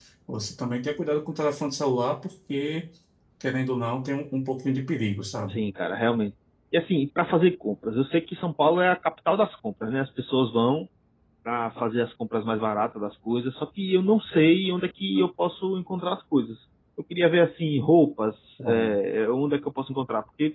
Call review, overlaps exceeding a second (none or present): none